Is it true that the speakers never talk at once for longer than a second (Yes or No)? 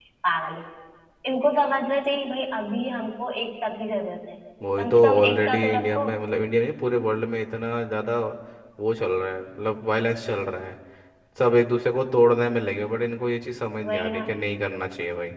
No